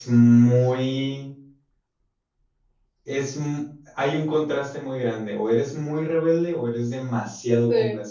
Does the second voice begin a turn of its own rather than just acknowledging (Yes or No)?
No